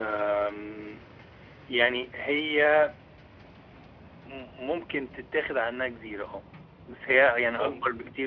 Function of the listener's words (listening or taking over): listening